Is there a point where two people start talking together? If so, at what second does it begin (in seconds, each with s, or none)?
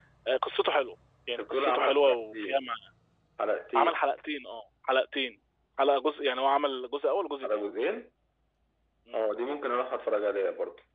1.4 s